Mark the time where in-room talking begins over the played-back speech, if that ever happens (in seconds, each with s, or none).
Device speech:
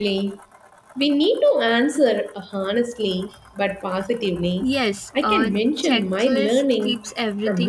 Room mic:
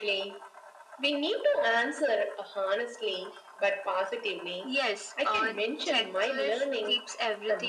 none